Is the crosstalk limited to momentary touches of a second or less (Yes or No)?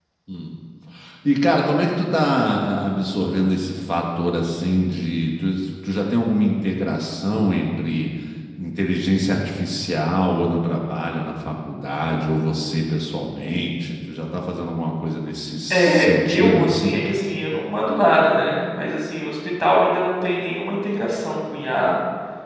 No